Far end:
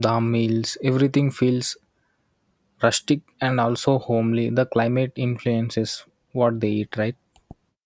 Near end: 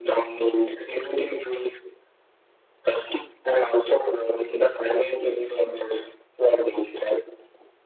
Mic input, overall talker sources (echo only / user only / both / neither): echo only